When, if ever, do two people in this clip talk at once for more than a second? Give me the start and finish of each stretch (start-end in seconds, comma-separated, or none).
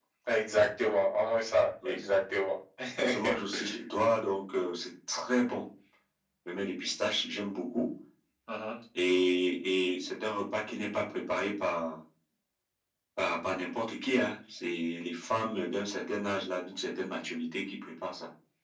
none